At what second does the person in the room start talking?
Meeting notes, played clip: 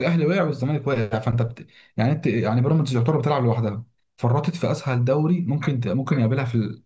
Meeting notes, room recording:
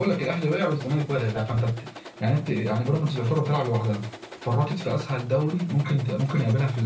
none

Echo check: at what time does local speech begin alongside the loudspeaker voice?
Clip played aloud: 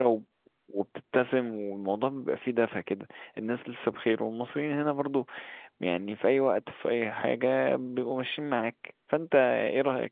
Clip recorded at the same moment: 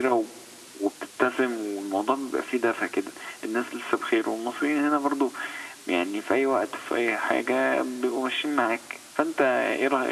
none

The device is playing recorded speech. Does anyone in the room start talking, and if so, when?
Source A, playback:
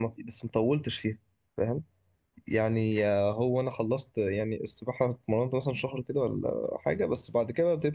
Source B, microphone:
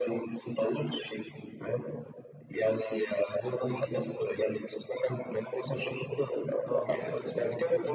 5.8 s

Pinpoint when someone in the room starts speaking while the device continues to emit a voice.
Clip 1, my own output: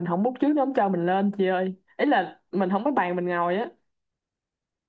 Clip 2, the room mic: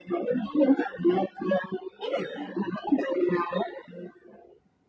none

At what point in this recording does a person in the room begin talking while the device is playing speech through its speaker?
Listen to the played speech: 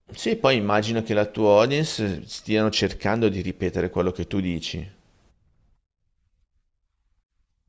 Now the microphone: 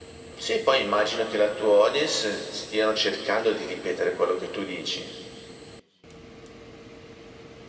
none

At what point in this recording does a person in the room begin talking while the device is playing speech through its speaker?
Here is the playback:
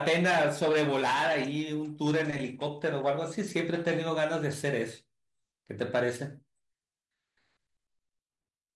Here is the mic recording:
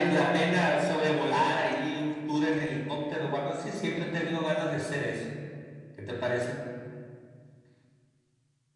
none

